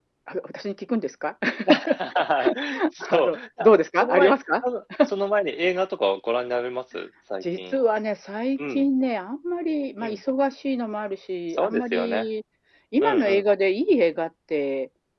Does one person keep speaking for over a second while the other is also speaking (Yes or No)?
Yes